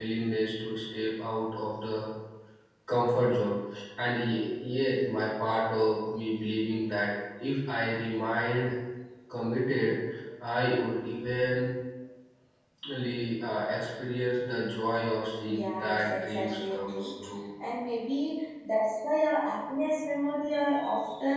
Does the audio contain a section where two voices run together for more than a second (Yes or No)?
Yes